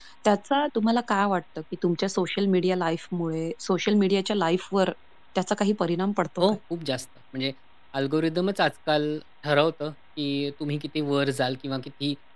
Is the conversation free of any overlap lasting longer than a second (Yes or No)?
Yes